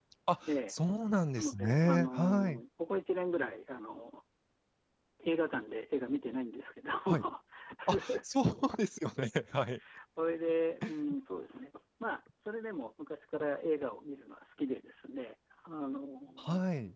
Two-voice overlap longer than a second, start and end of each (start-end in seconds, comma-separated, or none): 1.4-2.6